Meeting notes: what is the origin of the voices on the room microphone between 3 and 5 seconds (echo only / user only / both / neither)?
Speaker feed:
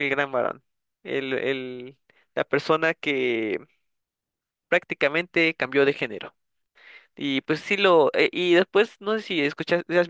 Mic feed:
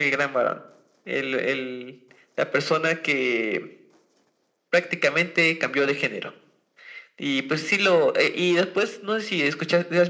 echo only